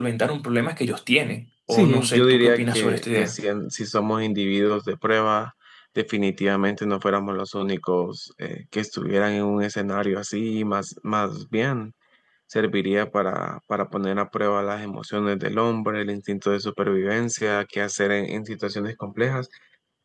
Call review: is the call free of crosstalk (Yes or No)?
No